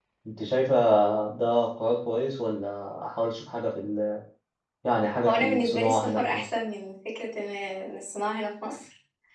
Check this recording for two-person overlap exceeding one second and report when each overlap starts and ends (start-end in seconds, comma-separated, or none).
5.2-6.5